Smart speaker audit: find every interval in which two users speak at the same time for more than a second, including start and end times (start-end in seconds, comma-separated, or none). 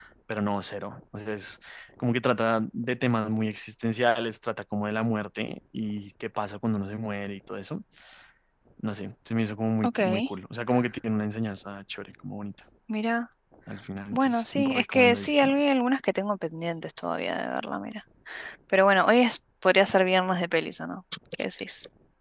14.1-15.5